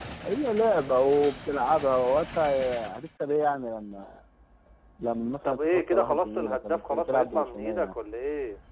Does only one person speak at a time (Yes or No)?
No